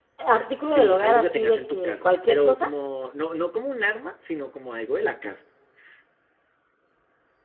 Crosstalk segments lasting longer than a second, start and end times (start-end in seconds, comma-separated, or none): 0.6-2.7